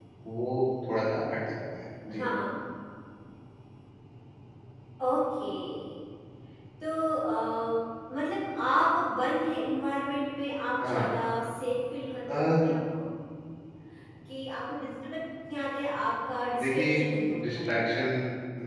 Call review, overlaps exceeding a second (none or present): none